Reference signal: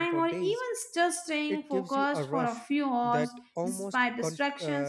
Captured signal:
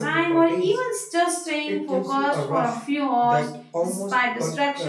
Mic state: echo only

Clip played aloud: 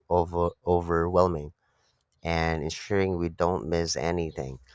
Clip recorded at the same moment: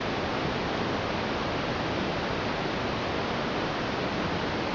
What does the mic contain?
neither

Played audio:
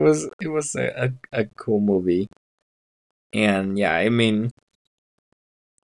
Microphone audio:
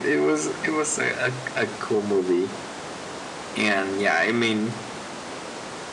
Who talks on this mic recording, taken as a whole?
echo only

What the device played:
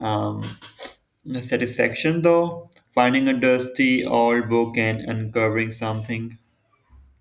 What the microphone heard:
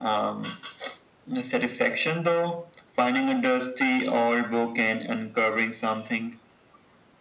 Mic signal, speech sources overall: echo only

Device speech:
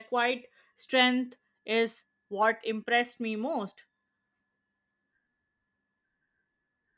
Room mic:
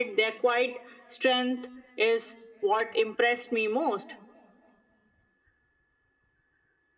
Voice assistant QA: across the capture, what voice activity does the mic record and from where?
echo only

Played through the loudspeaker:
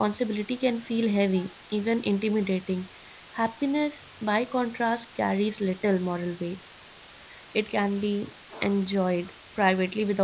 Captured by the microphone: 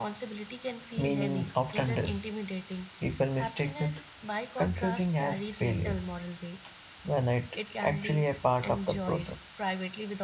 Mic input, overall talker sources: both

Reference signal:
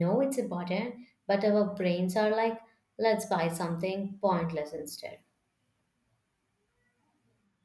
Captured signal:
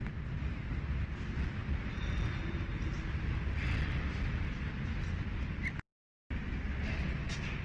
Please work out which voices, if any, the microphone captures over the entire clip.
neither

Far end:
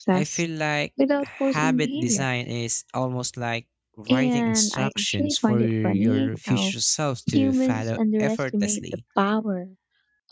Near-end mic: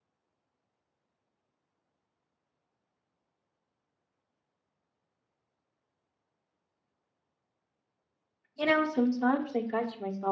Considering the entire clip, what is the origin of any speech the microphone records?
user only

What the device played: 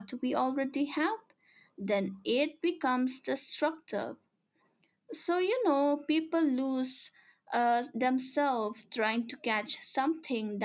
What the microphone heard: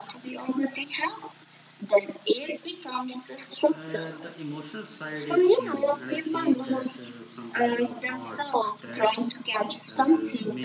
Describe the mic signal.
both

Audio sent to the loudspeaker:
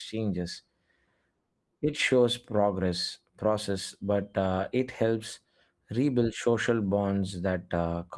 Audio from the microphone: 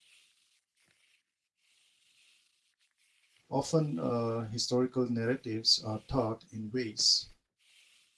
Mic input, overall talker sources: user only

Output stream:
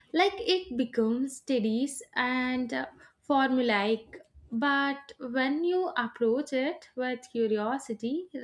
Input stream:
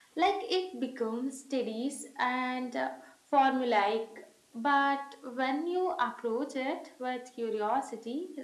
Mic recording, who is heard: echo only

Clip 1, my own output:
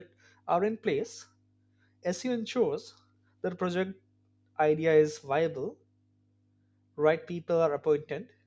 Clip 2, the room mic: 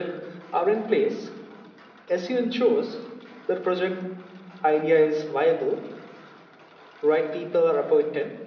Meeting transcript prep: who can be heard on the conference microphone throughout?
echo only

